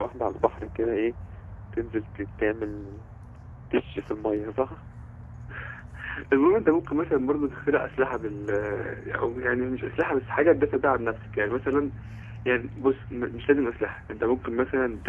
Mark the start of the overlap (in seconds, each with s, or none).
none